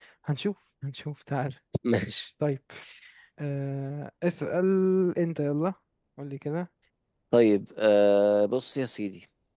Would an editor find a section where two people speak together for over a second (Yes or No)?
No